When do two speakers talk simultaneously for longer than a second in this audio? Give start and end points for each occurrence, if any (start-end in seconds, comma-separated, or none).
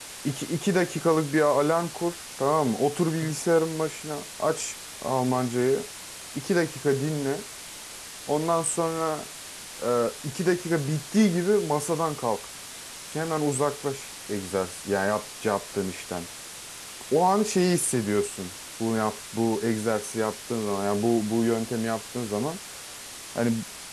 none